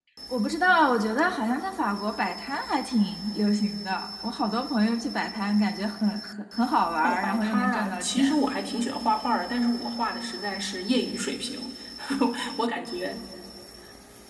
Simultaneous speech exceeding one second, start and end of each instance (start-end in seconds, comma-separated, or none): 7.0-8.4